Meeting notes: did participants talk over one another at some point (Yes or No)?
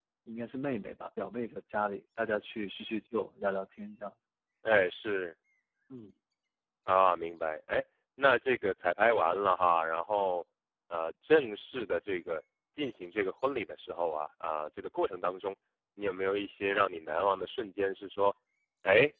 No